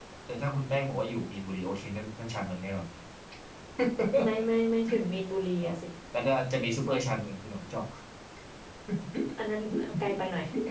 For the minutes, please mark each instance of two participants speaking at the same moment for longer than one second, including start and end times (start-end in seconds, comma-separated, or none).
none